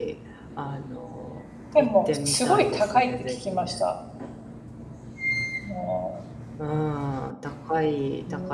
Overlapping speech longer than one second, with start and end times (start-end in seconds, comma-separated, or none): 1.8-3.7